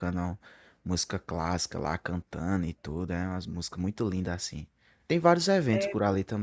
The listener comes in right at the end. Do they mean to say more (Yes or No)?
No